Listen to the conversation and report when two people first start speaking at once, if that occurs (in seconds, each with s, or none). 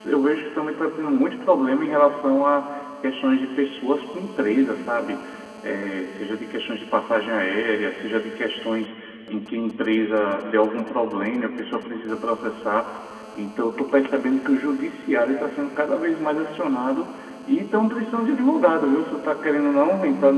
none